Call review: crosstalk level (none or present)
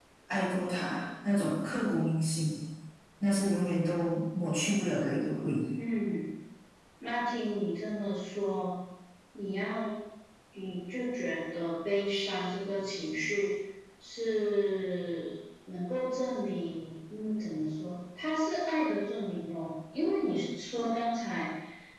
none